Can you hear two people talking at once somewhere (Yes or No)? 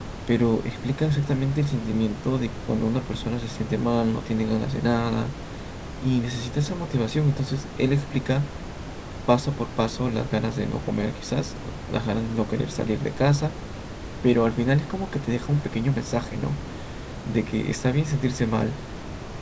No